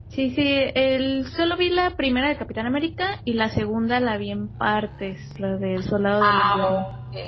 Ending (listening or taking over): taking over